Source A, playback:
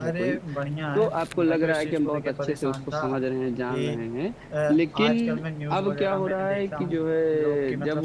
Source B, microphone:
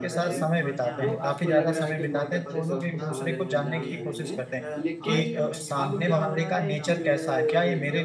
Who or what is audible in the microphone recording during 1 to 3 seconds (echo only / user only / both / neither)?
both